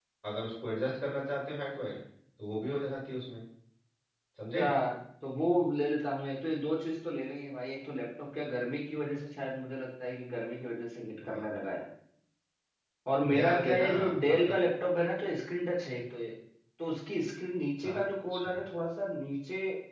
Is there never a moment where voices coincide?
No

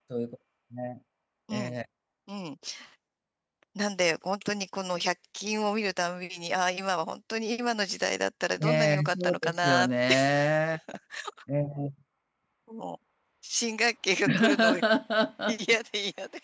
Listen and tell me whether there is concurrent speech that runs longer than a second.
Yes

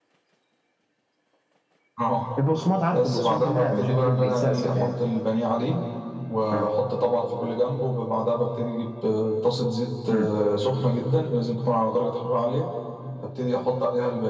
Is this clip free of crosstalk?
No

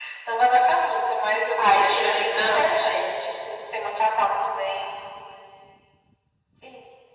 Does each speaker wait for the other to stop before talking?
No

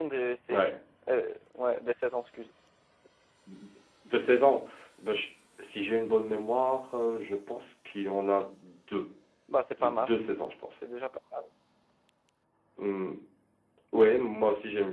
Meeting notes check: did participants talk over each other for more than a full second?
No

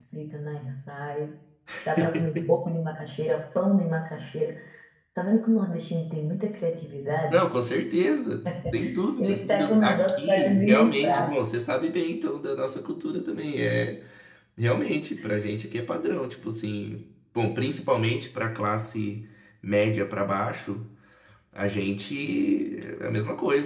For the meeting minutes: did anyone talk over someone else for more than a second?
Yes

